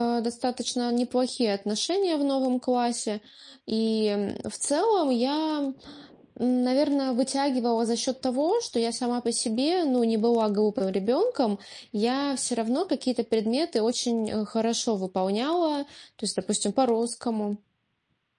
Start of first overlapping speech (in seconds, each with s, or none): none